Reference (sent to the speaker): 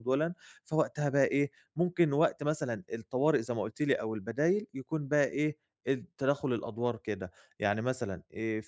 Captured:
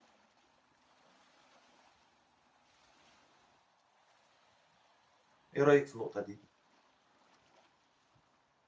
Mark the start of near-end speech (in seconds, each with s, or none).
5.6 s